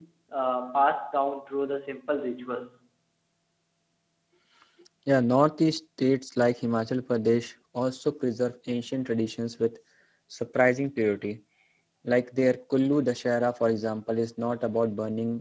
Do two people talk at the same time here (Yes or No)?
No